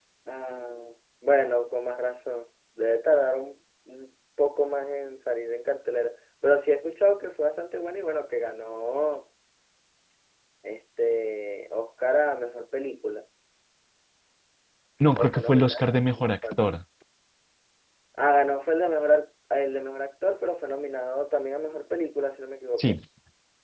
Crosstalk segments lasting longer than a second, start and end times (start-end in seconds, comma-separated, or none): 15.2-16.6